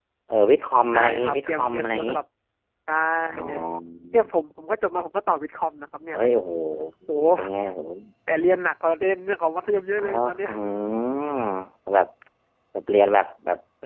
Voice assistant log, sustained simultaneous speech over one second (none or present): present